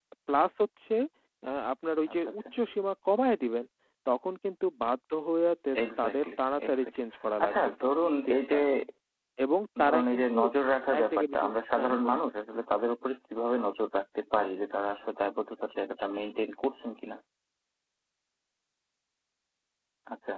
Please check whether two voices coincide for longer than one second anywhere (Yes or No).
Yes